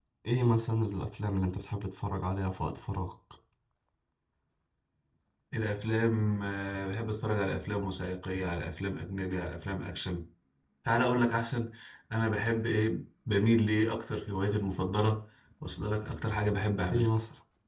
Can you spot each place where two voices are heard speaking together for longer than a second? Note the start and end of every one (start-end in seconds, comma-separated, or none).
none